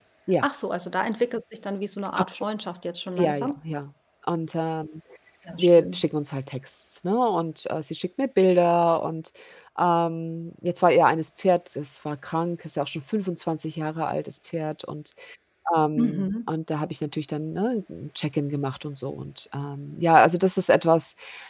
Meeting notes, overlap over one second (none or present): none